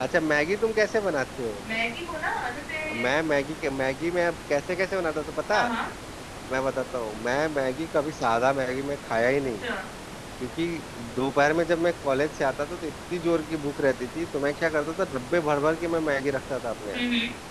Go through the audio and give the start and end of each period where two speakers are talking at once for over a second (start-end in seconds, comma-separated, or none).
none